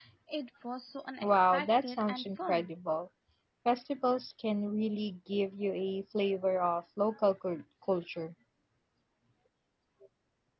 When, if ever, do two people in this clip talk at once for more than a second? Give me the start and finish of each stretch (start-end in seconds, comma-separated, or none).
1.2-2.7